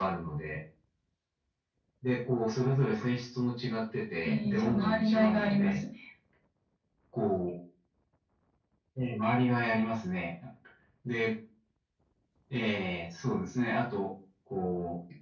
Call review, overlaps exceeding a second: present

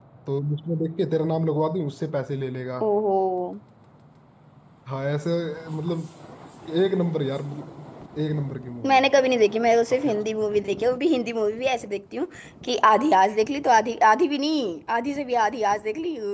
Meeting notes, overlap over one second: none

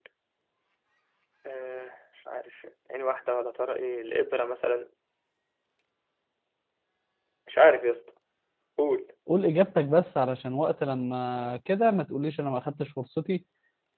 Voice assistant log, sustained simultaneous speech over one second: none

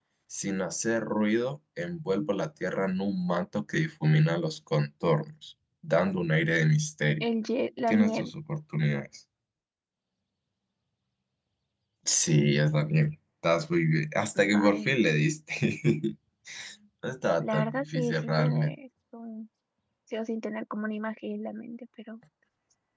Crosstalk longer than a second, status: present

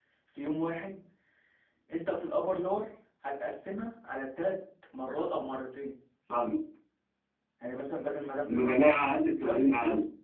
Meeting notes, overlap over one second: present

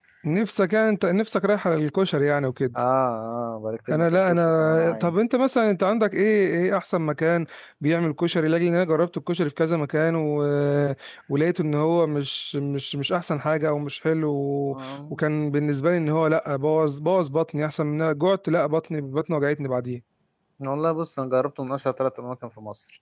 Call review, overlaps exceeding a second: present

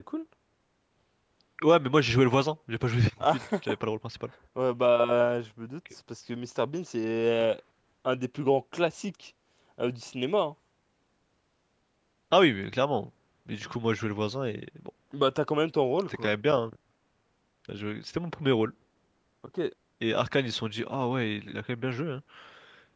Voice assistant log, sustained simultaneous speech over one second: none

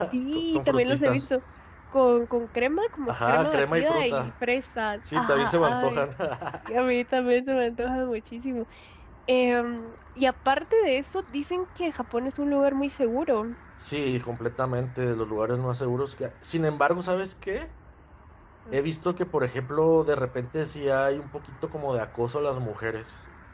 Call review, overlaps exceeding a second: present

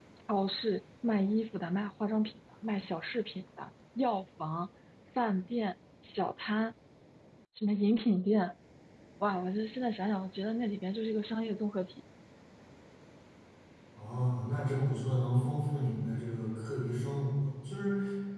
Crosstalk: none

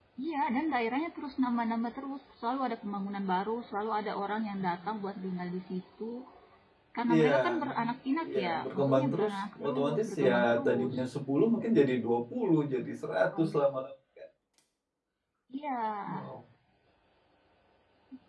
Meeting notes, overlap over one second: present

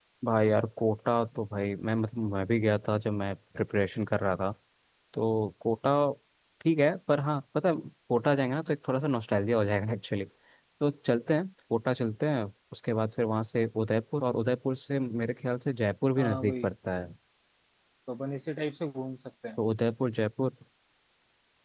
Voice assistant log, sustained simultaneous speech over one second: none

